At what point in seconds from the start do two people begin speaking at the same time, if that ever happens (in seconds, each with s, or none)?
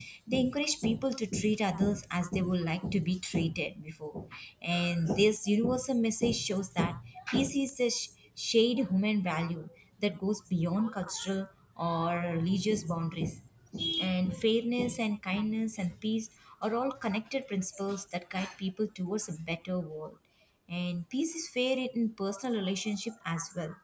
none